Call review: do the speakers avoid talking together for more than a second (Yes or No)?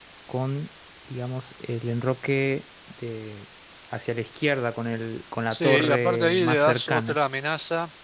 No